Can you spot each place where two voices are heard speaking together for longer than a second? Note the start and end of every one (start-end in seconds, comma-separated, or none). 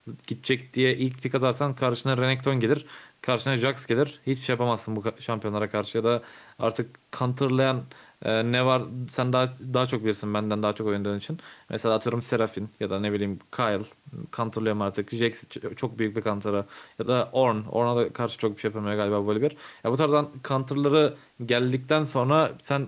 none